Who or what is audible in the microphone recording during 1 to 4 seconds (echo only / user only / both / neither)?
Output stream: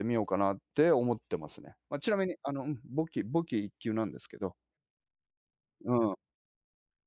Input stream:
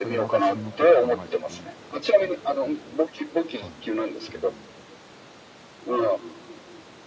both